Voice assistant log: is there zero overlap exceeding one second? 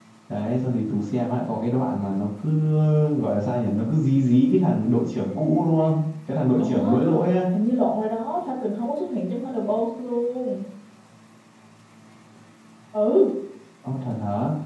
Yes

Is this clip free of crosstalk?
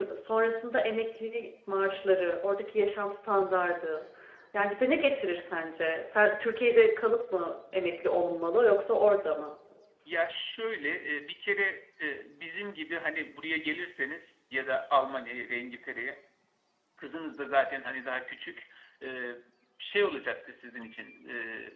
Yes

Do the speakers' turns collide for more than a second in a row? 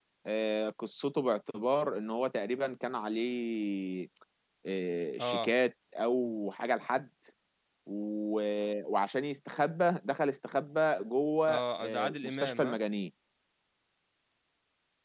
Yes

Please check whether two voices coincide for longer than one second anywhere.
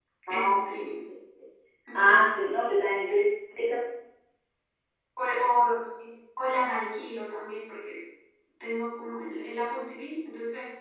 No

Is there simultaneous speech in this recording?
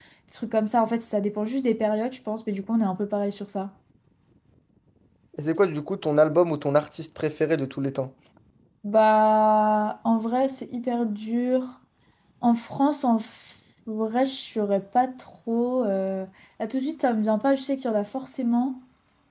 No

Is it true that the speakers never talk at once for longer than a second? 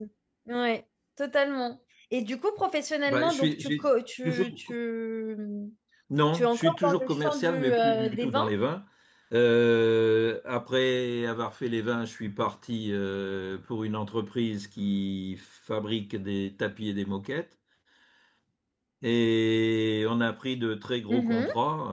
No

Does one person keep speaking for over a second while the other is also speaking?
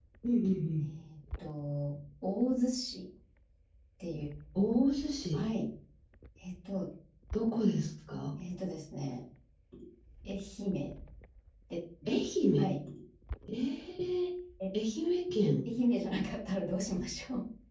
No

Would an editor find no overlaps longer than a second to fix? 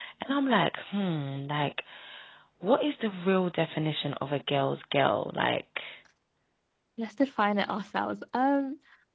Yes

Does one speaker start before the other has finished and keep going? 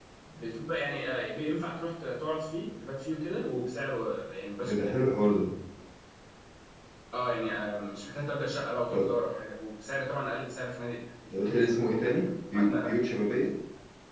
Yes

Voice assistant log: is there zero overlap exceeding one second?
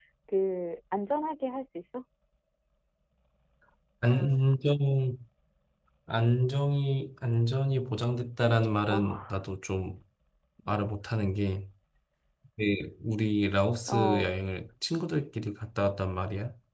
Yes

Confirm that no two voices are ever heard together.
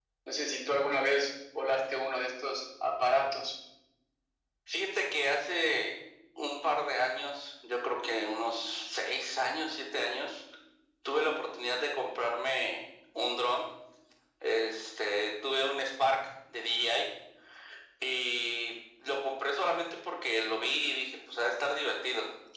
Yes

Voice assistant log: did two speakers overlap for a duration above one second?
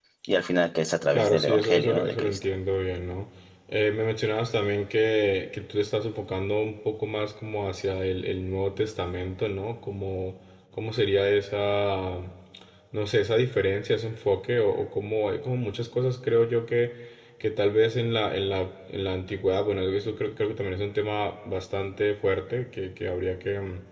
Yes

